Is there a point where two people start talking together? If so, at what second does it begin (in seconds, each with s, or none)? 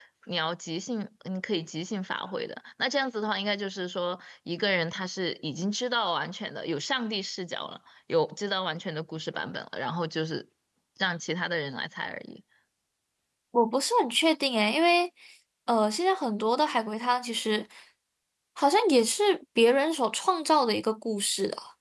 none